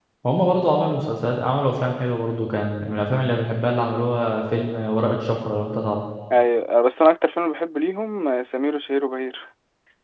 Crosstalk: none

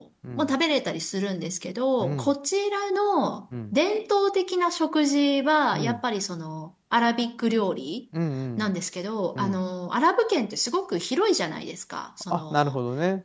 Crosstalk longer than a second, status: none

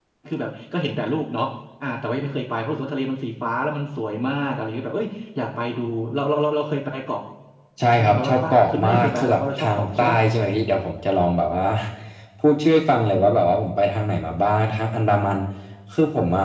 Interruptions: present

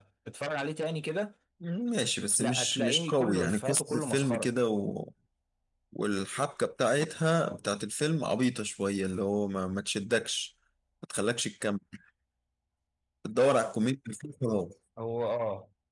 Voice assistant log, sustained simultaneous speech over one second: present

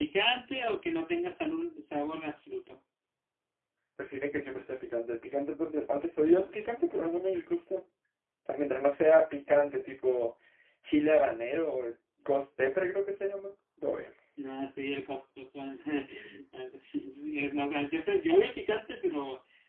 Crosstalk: none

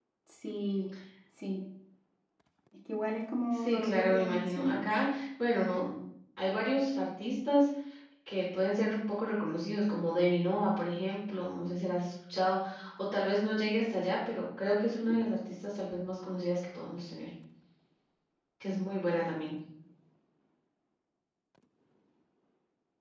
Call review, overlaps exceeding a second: present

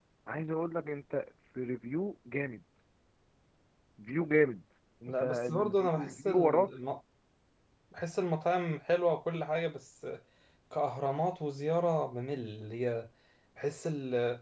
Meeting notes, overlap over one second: present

